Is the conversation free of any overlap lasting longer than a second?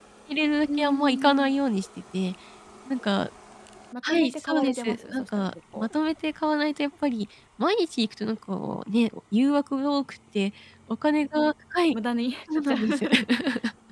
No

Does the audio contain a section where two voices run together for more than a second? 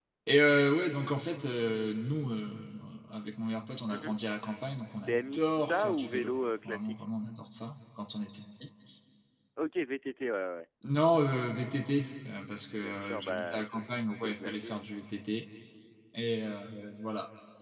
Yes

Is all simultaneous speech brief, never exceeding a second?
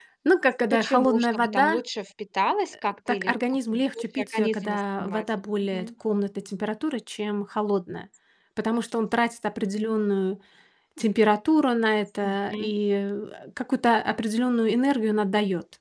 No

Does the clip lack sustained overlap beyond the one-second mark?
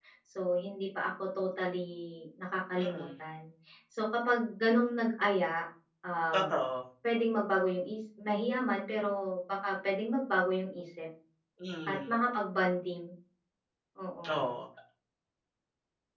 Yes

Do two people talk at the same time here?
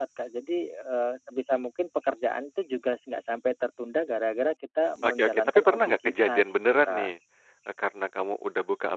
Yes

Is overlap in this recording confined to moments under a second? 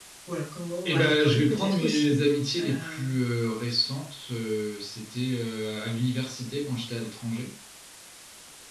No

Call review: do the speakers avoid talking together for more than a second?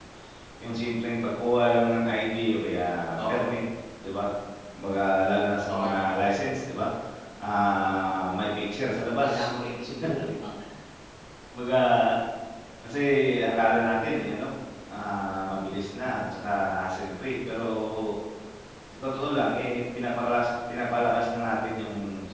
Yes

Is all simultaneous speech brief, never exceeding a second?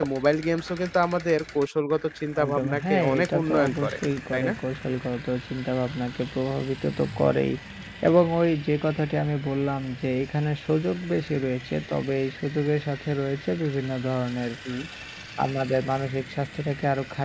No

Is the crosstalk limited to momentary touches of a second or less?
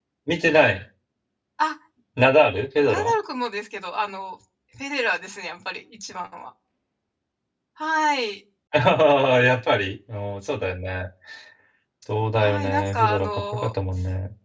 No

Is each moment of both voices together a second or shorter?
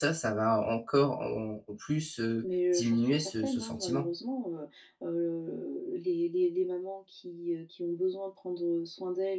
No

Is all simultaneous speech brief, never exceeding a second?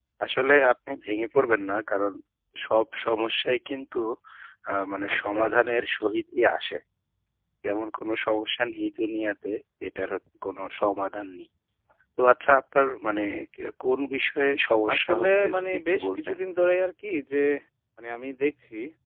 No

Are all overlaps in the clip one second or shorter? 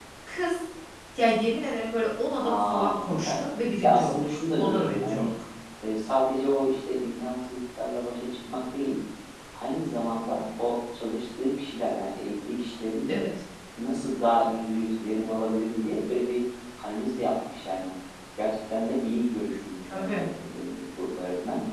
No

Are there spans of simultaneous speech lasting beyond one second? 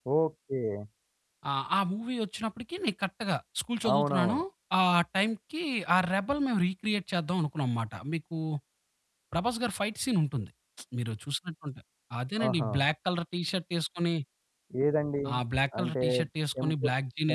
No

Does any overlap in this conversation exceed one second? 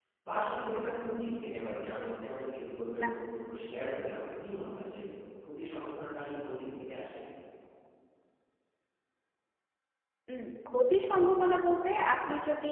No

